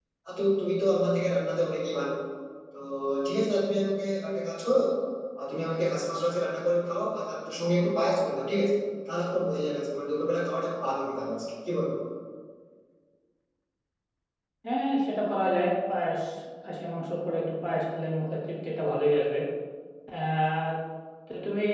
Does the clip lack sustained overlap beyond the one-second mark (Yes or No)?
Yes